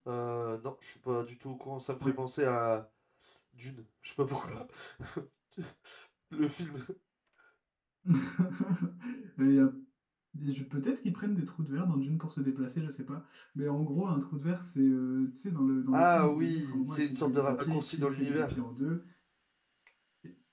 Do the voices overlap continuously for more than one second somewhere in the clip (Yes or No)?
Yes